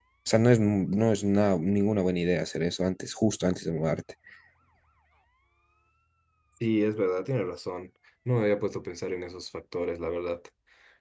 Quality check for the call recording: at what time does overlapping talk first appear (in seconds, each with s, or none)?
none